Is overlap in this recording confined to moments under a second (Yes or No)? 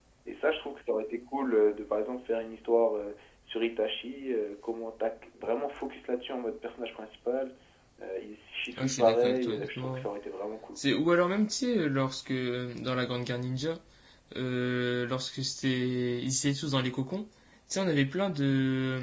No